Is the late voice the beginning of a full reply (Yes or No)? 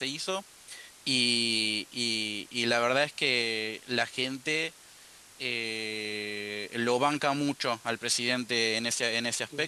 Yes